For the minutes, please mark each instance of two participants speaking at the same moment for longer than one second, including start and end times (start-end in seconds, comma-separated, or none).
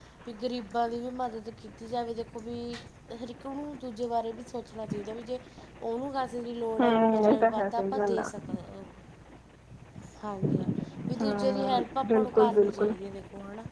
6.8-8.3, 11.2-12.9